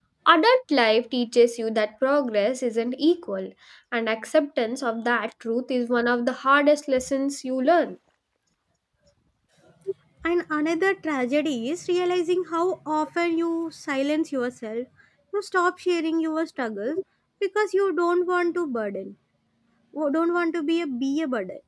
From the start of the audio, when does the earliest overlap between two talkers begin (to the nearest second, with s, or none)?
none